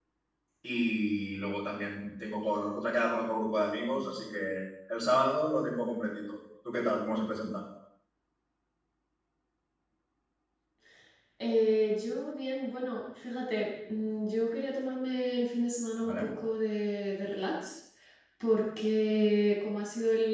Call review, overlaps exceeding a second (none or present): none